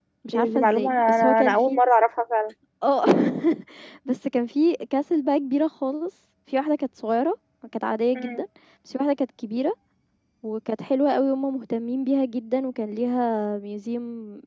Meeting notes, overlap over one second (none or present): present